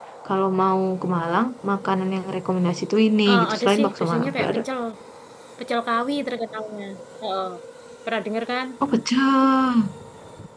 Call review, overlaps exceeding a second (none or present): present